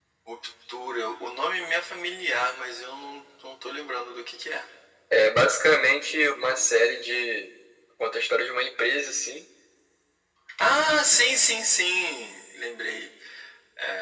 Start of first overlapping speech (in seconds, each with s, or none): none